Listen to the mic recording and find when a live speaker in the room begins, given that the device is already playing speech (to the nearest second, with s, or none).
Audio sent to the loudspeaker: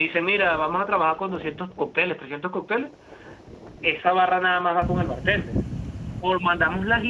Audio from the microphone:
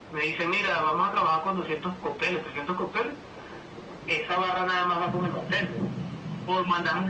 none